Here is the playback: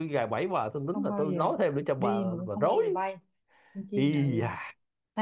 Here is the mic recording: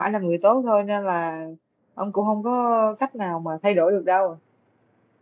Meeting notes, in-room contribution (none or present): present